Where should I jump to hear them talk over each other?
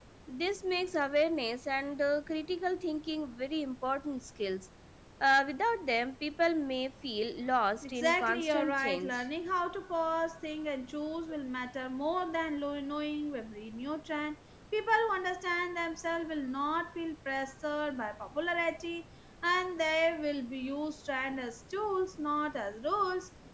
7.8 s

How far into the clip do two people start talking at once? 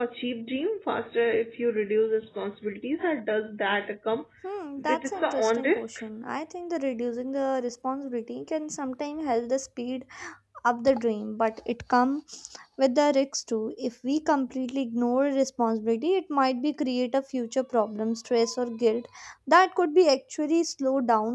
4.8 s

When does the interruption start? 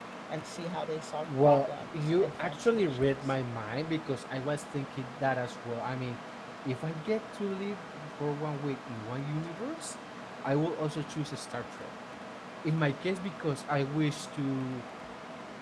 1.2 s

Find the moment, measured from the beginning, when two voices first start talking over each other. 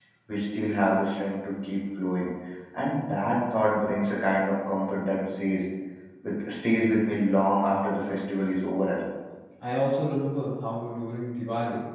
none

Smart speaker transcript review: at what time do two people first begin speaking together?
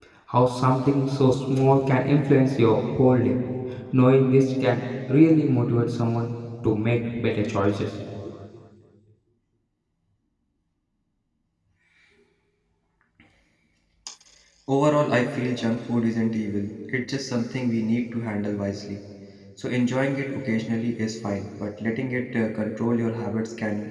none

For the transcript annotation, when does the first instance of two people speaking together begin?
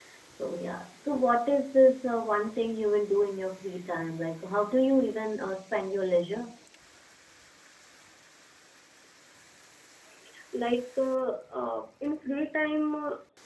none

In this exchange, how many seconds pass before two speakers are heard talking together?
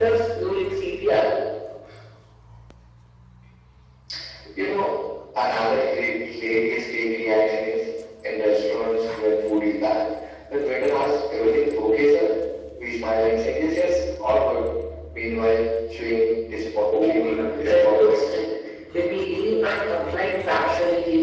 16.9 s

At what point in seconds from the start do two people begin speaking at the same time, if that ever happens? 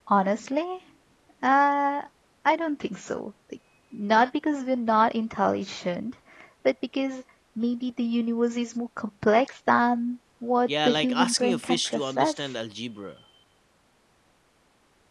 10.7 s

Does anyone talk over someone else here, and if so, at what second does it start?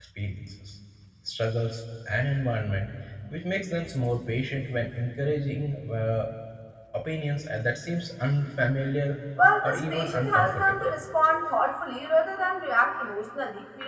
9.6 s

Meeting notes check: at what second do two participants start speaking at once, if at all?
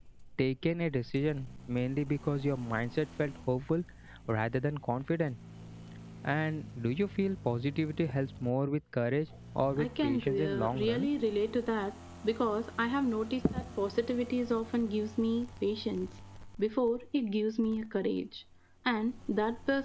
9.8 s

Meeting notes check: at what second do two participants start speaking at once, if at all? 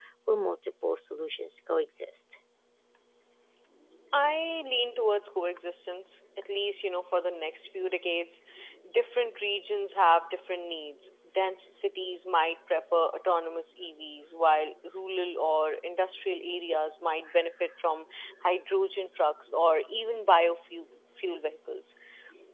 none

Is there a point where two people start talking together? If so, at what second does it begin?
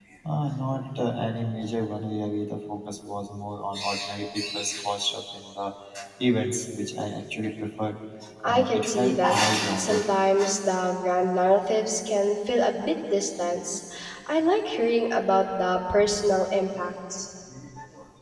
8.5 s

